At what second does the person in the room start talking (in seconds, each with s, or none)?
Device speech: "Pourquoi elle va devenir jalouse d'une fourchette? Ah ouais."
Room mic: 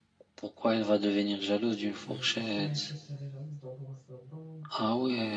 2.1 s